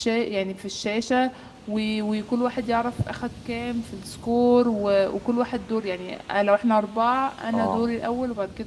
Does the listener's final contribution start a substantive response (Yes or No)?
No